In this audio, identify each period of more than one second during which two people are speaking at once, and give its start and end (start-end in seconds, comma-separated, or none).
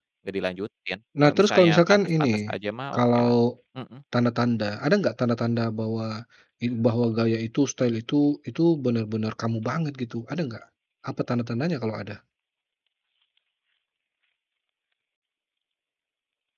1.2-2.5